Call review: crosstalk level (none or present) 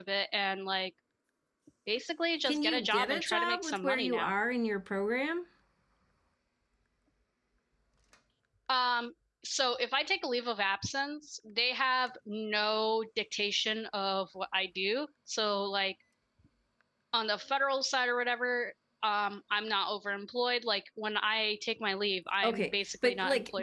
present